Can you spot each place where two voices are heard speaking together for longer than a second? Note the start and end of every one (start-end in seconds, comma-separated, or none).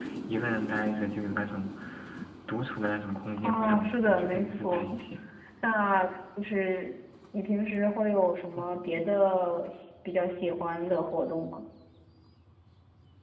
3.4-4.9